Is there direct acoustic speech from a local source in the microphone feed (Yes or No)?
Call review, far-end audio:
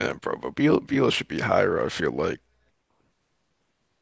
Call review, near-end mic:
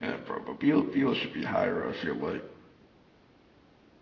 No